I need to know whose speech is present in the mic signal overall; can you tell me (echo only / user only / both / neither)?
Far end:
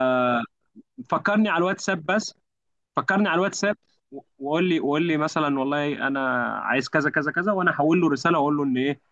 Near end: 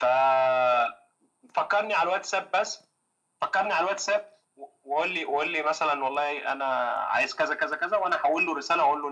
echo only